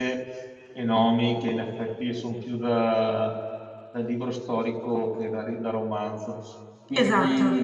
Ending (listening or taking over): taking over